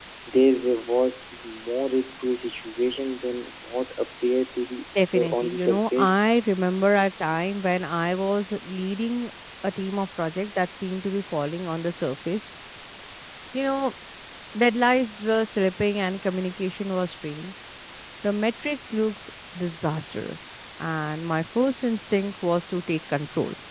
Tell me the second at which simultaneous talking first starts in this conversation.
5.0 s

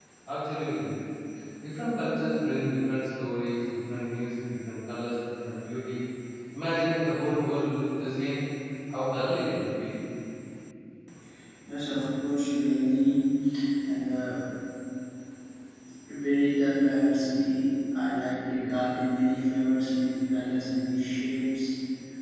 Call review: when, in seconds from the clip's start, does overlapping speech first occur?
none

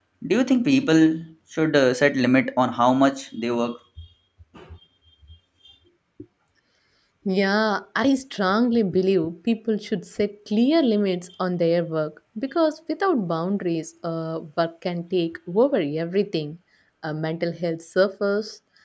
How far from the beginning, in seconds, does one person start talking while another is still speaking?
none

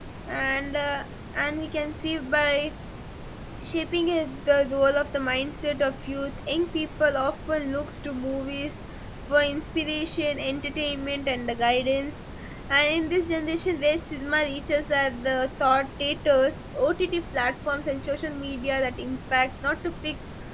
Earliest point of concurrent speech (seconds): none

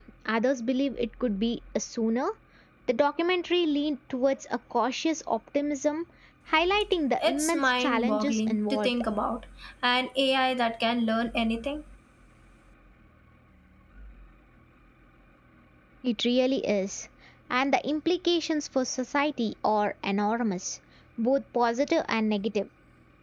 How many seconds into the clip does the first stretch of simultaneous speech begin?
7.2 s

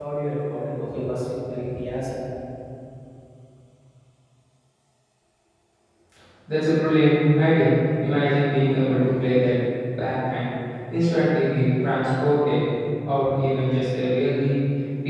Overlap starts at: none

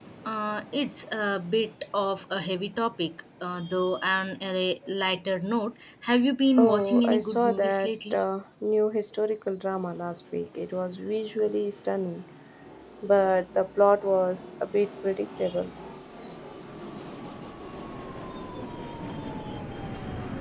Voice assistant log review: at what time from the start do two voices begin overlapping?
6.6 s

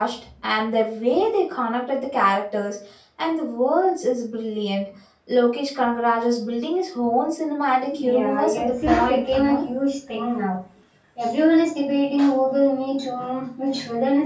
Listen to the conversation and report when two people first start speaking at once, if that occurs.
7.9 s

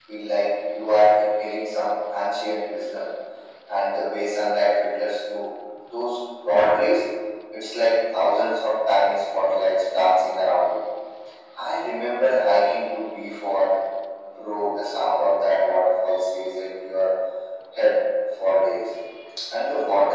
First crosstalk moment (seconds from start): none

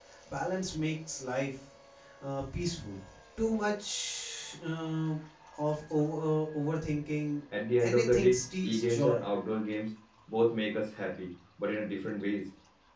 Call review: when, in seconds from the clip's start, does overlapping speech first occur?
7.8 s

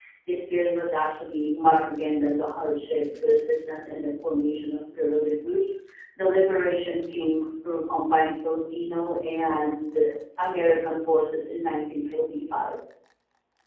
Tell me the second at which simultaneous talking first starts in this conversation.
none

